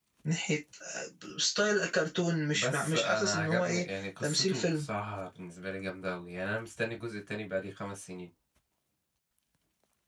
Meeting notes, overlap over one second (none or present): present